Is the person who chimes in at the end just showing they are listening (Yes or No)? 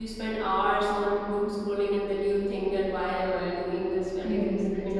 No